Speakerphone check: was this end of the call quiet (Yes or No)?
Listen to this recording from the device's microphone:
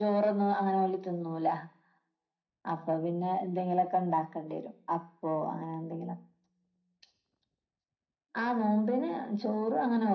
Yes